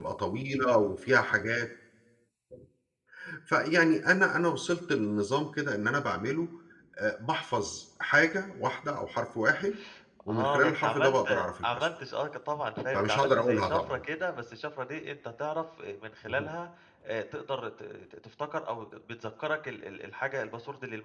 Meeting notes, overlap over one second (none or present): present